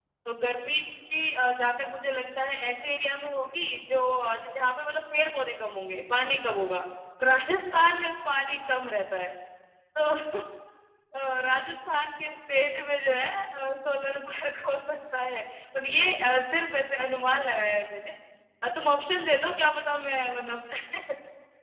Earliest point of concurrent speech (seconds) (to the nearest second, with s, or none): none